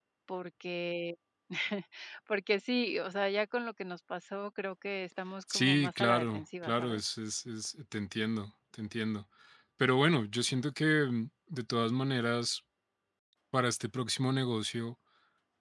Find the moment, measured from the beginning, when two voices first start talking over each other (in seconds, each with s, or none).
5.5 s